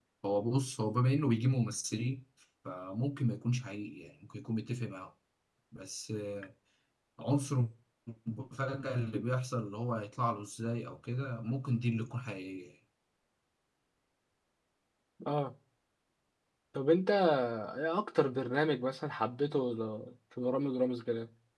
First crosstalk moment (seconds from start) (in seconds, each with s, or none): none